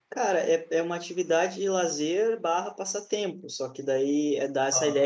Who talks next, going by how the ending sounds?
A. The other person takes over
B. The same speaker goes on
B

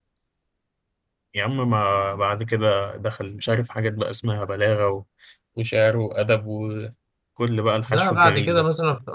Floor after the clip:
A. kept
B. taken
B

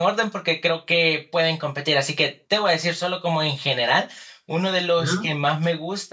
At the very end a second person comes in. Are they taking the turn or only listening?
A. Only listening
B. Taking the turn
A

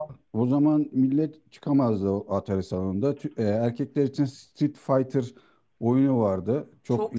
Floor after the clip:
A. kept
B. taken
B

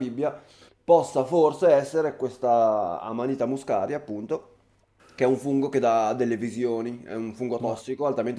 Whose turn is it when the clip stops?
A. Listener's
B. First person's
A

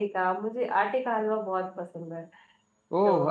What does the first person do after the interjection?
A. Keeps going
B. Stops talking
B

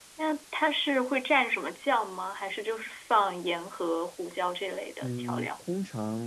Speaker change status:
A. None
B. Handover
B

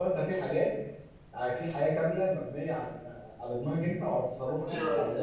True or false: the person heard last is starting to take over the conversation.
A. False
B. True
B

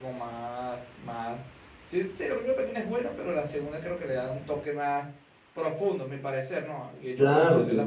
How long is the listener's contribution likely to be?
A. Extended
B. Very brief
A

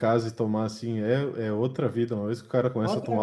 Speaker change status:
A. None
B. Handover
A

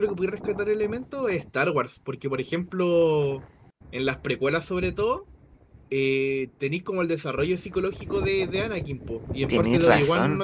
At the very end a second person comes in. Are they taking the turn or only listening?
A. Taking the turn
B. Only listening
B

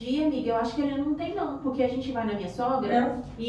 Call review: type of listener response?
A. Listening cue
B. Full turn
A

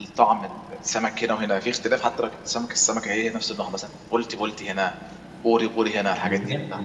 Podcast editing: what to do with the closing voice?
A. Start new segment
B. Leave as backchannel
A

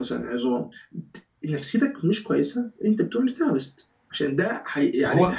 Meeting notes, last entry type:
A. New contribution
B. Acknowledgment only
B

